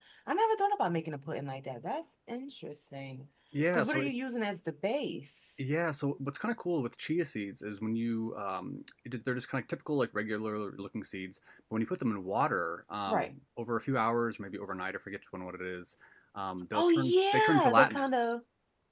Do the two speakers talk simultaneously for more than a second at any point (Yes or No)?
Yes